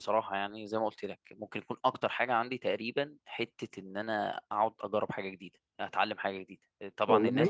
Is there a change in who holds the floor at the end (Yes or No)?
No